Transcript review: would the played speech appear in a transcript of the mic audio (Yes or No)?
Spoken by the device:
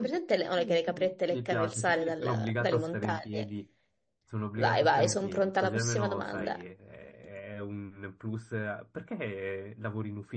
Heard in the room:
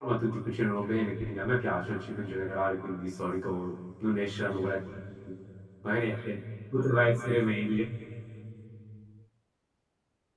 No